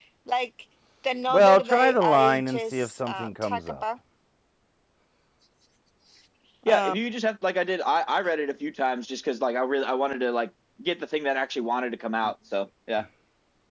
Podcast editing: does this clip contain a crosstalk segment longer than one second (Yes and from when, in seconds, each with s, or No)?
Yes, from 1.3 s